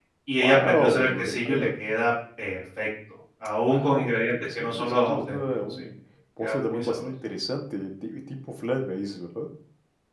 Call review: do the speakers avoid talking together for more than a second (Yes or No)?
No